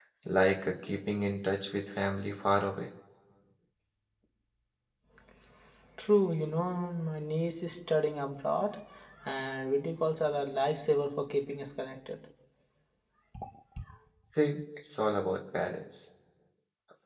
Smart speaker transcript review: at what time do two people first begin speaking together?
none

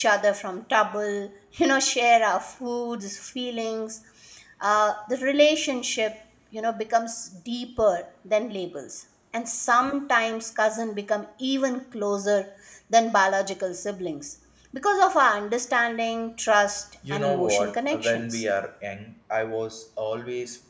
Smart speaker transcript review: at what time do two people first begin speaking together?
17 s

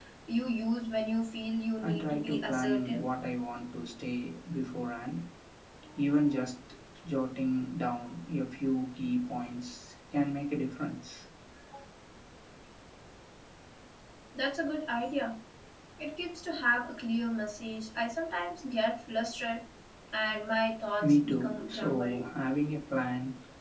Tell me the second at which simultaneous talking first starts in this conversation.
2 s

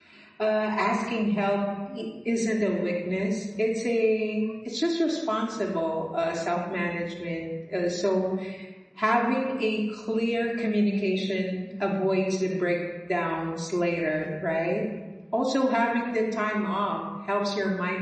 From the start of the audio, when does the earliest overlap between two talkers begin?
none

